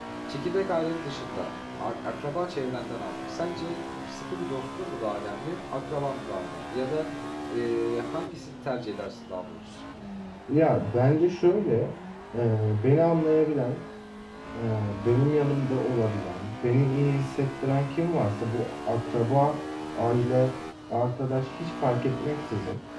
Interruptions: none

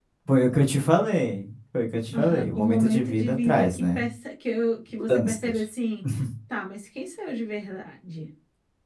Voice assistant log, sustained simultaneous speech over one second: present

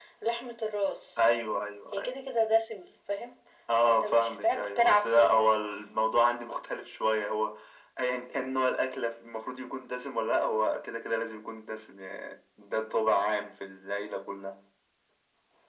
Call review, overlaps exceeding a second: present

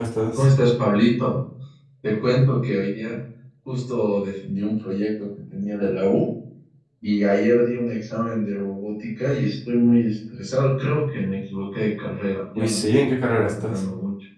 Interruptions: present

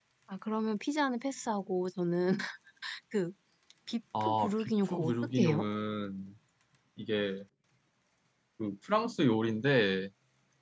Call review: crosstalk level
present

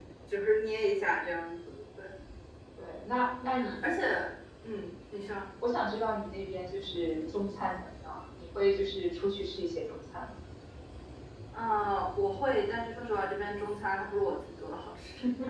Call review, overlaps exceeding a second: none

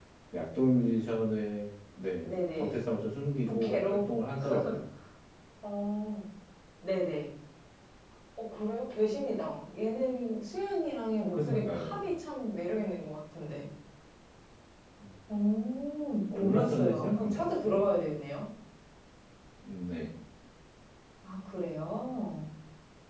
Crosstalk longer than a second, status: present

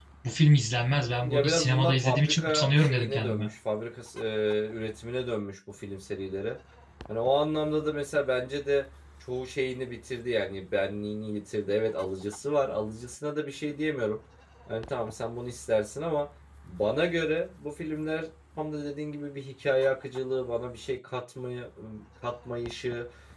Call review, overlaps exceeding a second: present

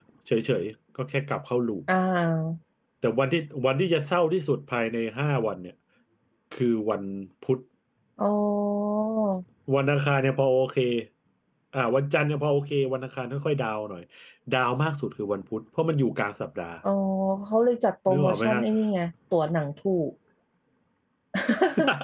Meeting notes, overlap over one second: none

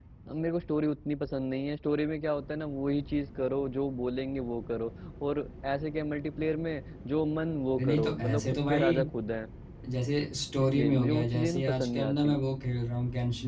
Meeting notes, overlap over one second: present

